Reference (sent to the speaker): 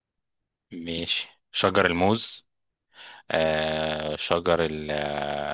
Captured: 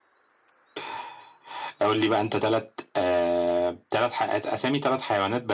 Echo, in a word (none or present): none